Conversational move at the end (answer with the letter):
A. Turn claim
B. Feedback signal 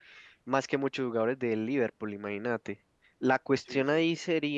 B